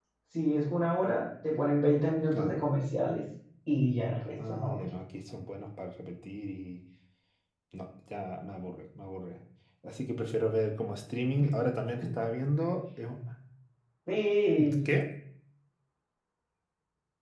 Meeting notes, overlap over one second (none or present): none